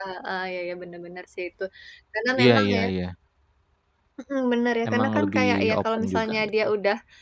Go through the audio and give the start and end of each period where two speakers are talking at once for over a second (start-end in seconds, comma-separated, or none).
4.9-6.5